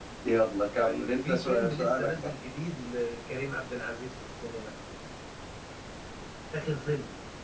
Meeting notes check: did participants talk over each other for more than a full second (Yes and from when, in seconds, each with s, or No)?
Yes, from 0.8 s